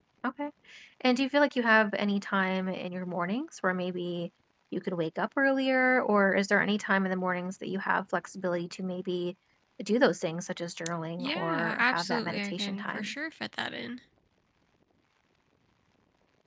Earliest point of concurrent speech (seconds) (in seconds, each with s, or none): 11.2 s